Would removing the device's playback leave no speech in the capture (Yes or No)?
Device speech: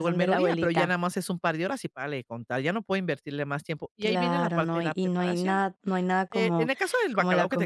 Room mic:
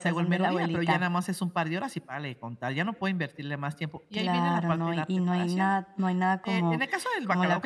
Yes